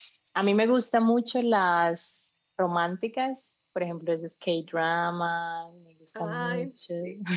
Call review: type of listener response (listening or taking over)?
taking over